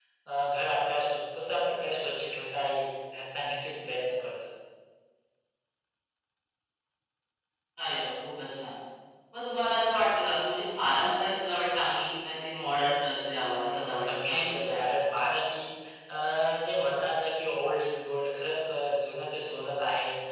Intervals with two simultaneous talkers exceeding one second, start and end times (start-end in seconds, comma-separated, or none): 13.7-15.0